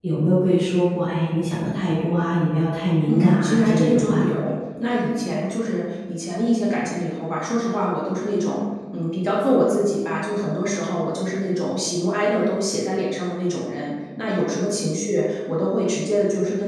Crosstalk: present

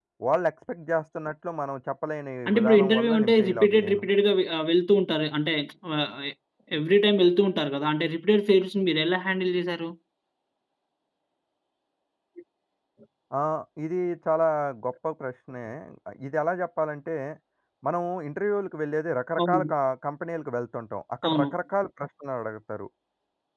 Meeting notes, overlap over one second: present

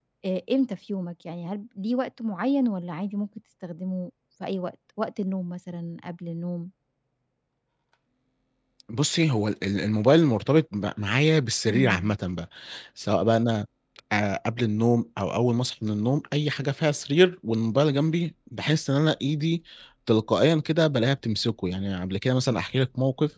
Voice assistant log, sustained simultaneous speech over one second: none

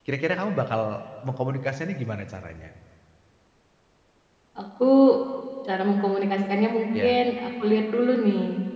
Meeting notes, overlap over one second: none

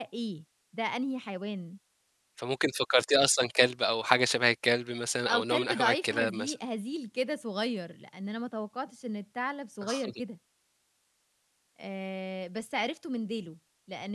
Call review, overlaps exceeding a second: present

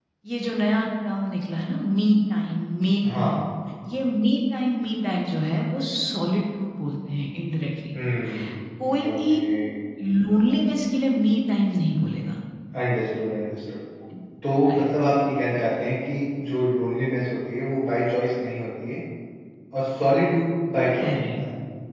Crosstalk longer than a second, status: none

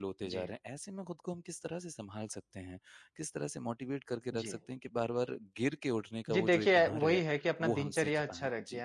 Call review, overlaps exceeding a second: present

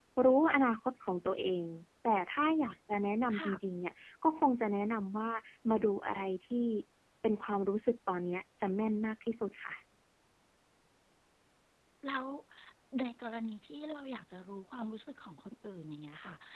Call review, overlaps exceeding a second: none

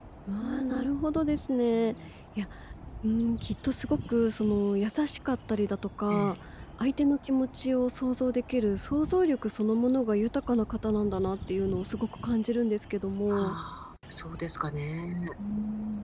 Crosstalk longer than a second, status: none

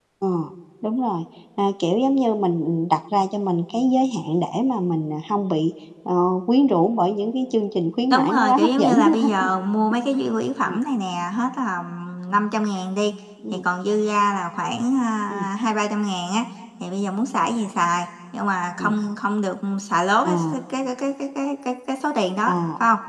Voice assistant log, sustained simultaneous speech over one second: present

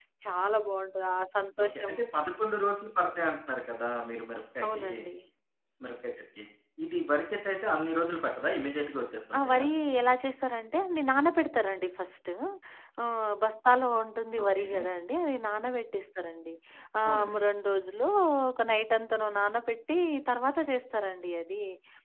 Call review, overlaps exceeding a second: none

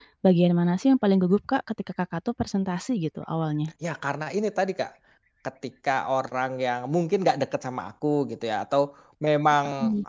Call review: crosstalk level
none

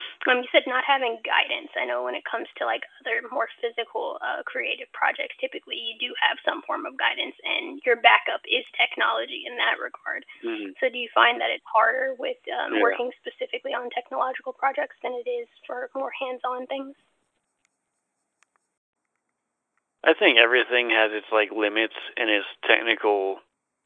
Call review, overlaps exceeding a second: none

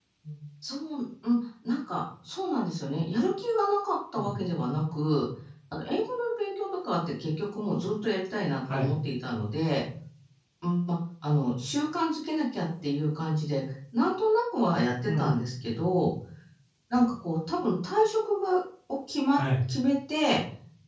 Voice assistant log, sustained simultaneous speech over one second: none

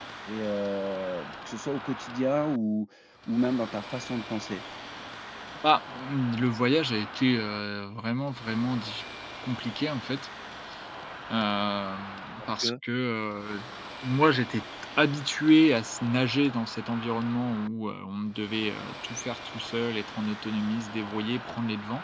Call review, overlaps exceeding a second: none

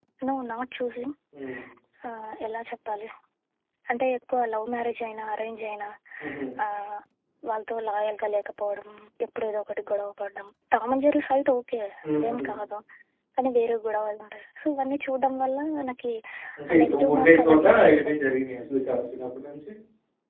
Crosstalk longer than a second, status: present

